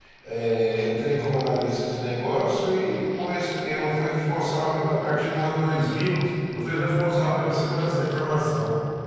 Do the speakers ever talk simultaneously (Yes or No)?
No